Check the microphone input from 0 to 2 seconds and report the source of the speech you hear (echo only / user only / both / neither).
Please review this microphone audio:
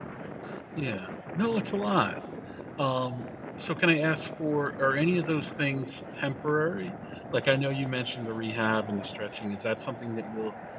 user only